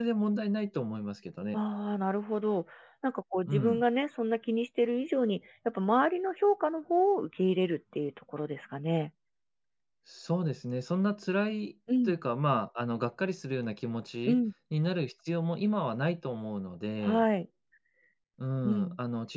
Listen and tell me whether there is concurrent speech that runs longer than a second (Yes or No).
No